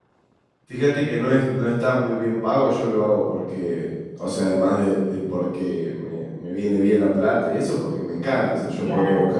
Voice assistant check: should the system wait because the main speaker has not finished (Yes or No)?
Yes